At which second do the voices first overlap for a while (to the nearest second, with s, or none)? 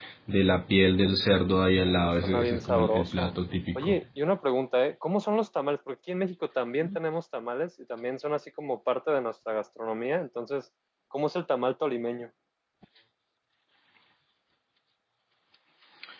2 s